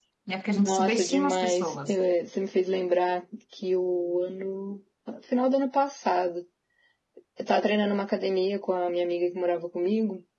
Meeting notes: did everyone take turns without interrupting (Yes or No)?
No